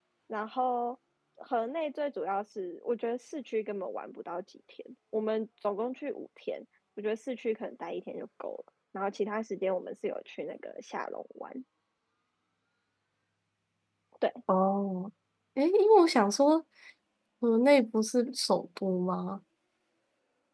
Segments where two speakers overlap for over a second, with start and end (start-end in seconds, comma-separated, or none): none